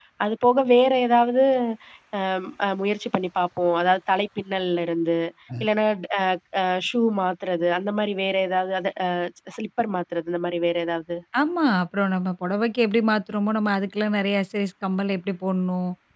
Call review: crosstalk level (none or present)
none